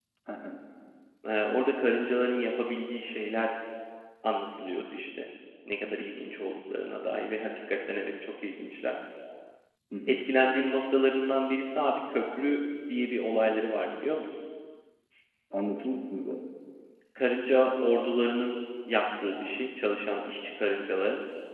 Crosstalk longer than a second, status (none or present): none